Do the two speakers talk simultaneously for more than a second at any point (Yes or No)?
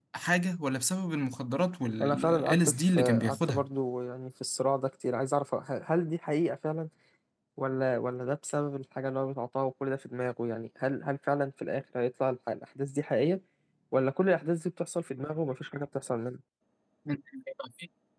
Yes